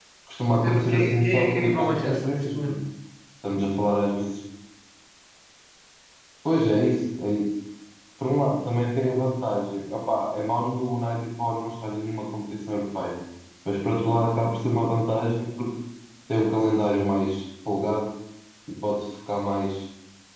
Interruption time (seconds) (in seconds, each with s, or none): 0.5 s